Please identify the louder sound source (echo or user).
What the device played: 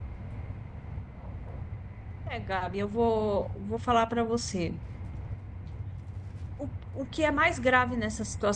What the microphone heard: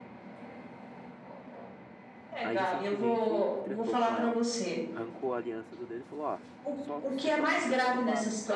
echo